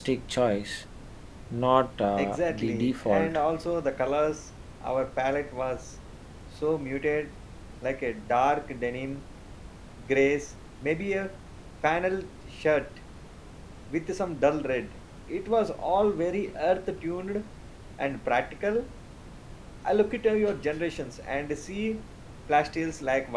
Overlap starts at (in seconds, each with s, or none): 2.2 s